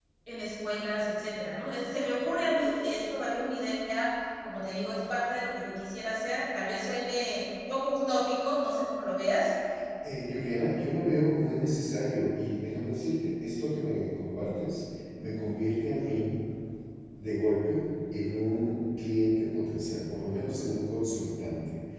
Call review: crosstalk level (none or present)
none